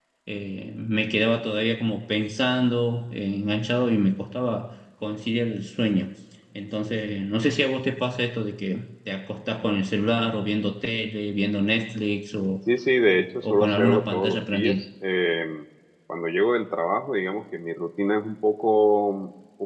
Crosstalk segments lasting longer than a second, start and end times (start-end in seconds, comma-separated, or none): 13.1-14.8